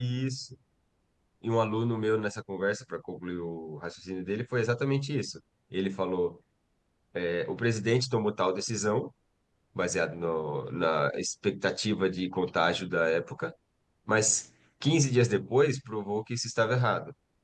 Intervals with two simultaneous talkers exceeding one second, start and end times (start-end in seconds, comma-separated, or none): none